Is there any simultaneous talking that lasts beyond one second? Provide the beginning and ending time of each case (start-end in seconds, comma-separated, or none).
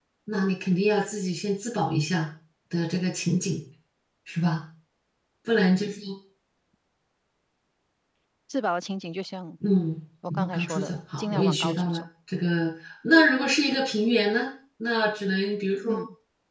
10.3-12.0